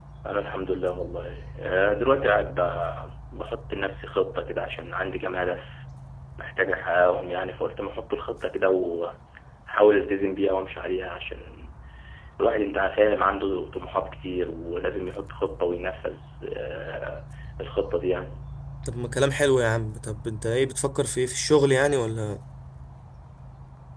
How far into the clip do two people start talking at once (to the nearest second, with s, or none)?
none